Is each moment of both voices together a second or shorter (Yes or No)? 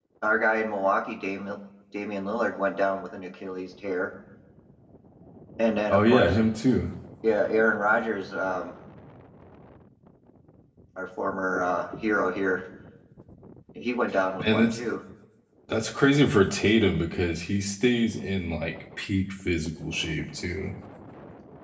Yes